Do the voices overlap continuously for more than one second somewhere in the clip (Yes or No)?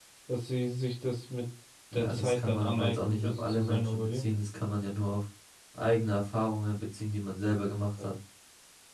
Yes